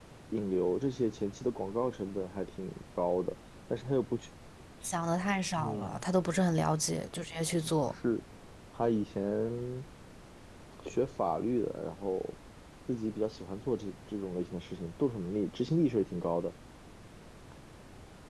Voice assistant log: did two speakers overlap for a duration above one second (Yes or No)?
No